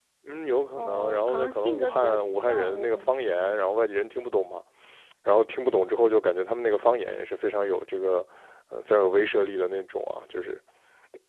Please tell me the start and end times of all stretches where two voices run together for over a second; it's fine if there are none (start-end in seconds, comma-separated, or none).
0.8-3.2